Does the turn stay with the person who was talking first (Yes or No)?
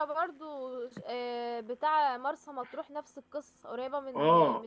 No